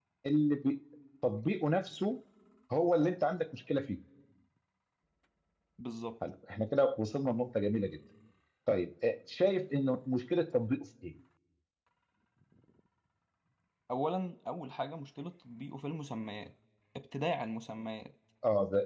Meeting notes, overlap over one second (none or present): none